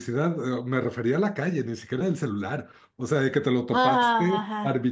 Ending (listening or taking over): listening